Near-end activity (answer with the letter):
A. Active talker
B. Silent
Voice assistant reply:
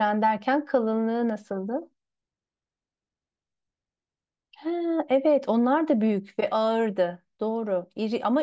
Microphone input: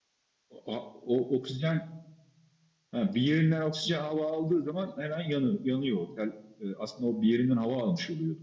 A